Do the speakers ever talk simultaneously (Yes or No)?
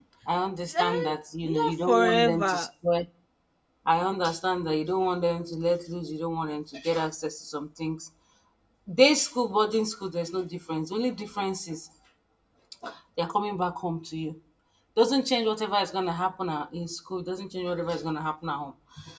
Yes